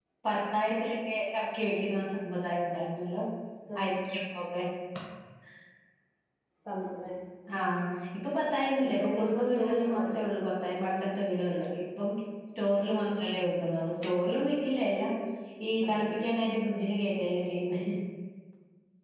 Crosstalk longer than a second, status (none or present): present